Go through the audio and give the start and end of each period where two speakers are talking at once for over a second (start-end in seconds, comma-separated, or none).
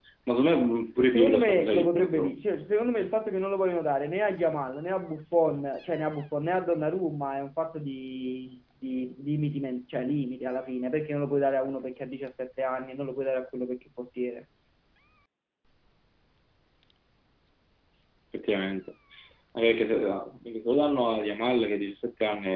1.1-2.3